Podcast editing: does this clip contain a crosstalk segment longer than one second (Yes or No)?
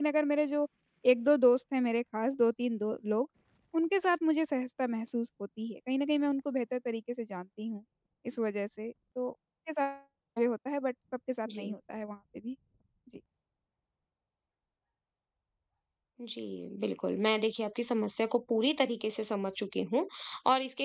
No